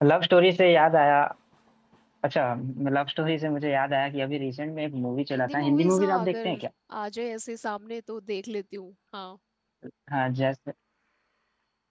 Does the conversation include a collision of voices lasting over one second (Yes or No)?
Yes